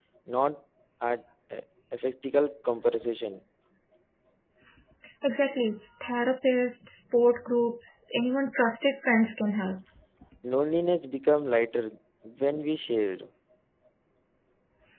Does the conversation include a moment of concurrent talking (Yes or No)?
No